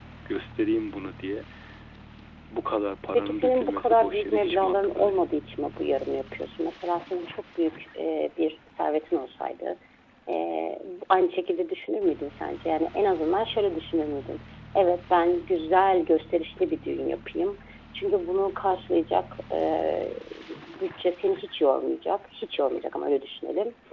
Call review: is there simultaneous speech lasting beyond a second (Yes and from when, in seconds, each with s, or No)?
Yes, from 3.1 s